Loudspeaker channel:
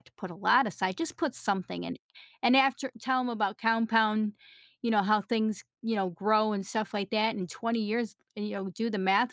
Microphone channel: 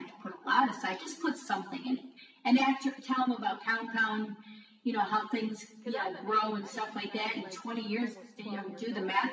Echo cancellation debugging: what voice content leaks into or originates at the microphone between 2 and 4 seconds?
echo only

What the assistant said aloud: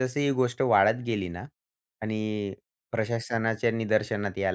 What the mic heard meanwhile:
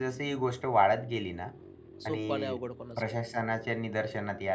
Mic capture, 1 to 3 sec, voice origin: both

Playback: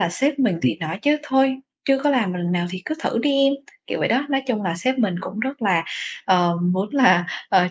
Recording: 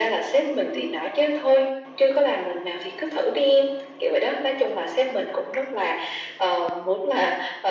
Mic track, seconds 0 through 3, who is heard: echo only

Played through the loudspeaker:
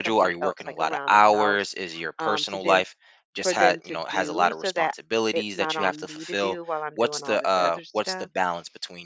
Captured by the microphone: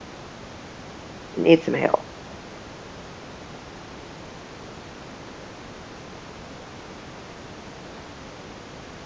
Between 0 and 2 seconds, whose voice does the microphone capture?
user only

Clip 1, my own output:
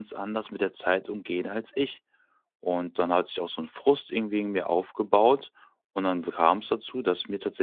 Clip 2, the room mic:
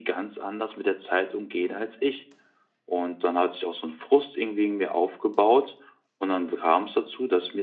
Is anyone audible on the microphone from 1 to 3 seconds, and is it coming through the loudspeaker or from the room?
echo only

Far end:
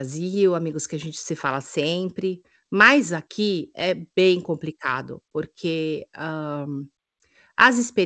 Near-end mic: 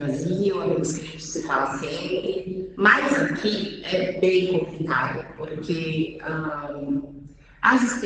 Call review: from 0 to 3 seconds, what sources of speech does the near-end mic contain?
echo only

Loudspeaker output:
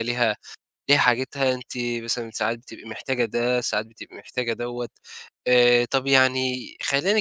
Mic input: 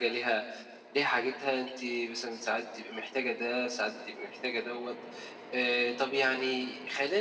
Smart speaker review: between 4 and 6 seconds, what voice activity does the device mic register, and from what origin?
echo only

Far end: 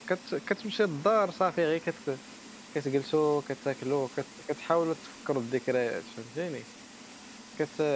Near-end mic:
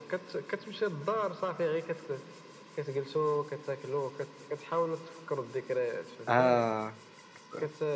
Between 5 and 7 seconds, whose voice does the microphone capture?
both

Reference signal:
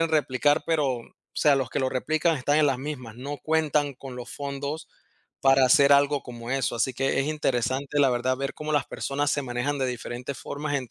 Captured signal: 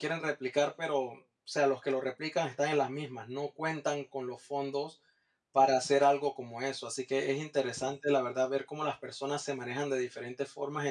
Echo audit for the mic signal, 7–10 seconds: echo only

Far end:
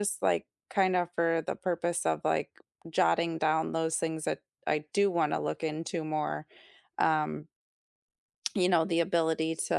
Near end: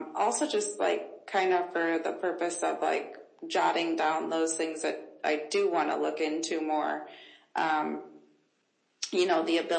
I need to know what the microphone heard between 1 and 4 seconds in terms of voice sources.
echo only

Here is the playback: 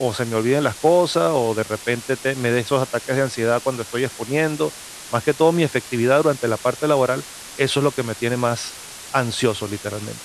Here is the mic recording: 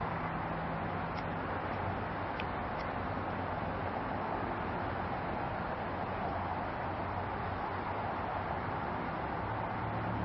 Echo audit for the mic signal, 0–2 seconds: neither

